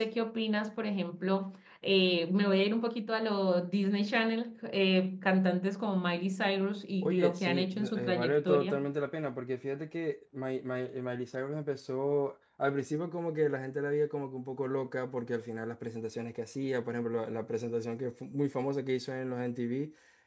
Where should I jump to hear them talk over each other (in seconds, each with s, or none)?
7.0 s